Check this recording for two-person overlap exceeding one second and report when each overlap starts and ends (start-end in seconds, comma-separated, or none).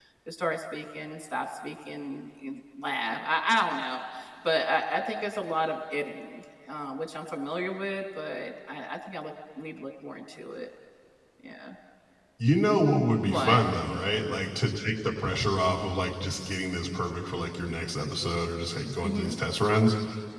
none